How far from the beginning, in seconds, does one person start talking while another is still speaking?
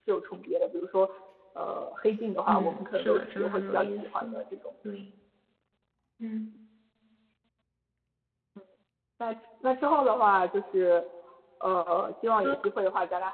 2.5 s

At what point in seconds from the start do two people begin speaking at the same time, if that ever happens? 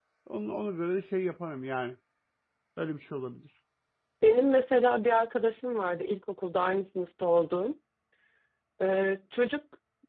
none

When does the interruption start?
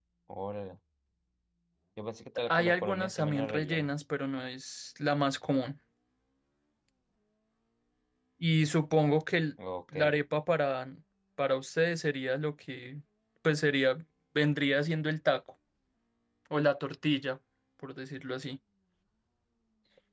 2.5 s

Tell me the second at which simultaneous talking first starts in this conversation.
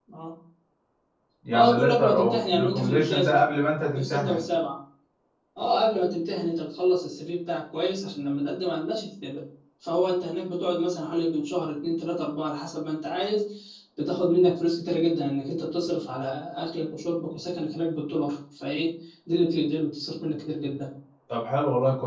1.5 s

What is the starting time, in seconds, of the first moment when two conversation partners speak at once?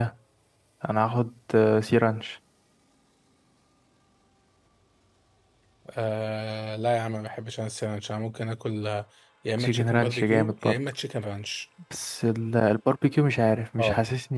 9.6 s

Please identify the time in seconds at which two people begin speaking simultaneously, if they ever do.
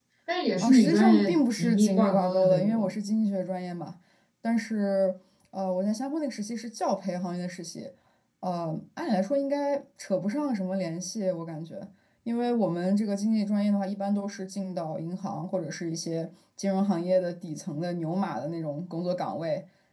0.6 s

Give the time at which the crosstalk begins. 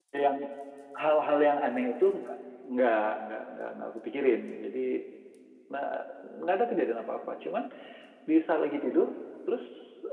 none

